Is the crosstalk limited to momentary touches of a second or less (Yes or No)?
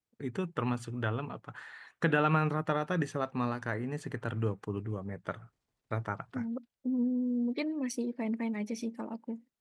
Yes